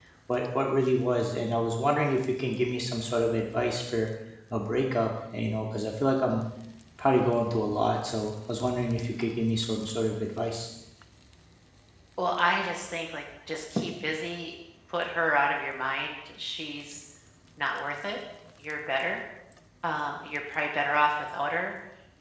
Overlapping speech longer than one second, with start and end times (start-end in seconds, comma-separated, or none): none